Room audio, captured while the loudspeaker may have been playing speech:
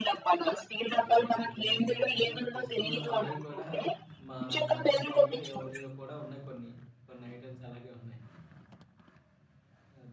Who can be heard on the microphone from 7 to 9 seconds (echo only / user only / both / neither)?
user only